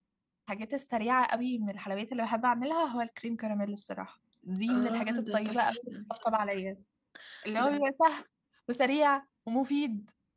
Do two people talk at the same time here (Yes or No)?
Yes